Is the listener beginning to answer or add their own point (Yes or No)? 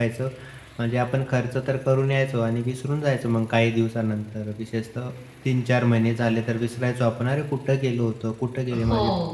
Yes